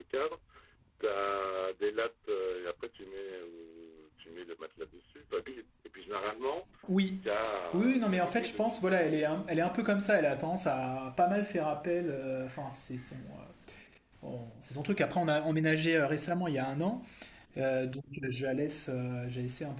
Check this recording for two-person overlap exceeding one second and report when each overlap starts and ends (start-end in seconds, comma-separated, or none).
7.7-9.3